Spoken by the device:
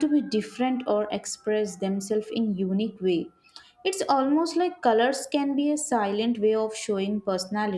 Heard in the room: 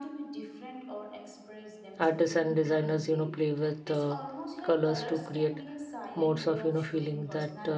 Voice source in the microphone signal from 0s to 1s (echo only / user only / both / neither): echo only